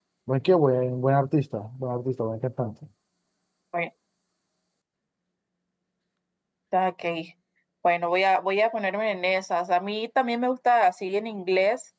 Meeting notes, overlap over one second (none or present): none